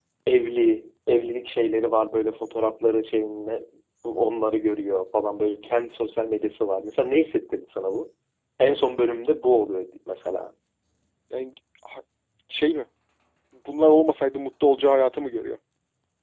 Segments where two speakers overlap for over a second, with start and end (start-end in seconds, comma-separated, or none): none